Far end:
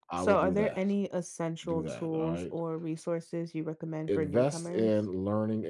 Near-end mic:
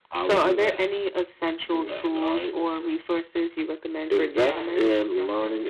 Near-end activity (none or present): present